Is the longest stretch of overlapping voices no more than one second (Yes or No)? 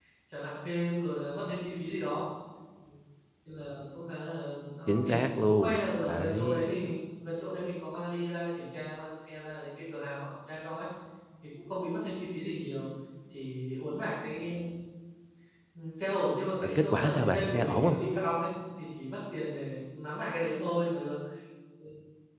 No